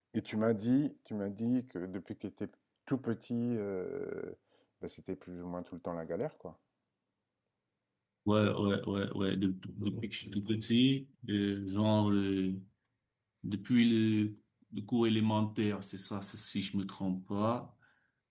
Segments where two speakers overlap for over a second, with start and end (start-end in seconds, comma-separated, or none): none